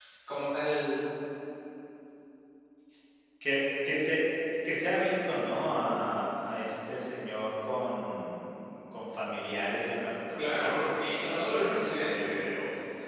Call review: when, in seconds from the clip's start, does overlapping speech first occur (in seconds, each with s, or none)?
10.4 s